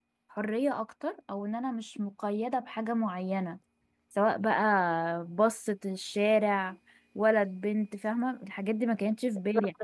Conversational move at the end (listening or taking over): listening